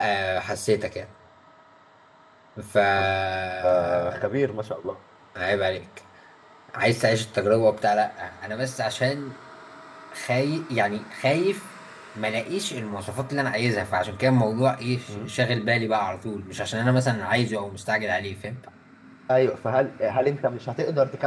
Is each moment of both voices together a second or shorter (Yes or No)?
Yes